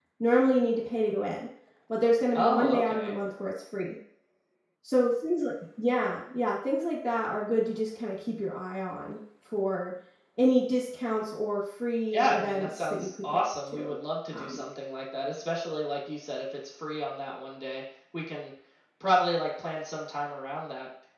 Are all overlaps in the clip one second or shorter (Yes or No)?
No